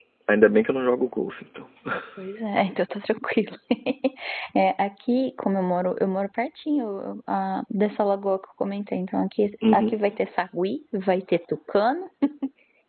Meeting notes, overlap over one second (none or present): none